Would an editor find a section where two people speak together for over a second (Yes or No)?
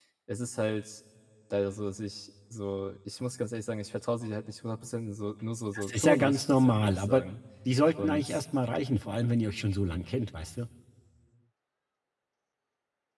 Yes